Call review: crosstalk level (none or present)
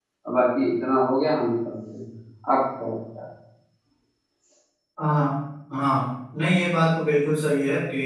none